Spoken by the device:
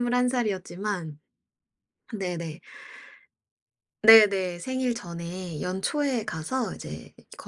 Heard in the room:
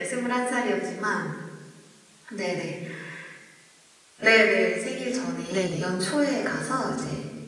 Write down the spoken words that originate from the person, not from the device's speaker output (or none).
네네.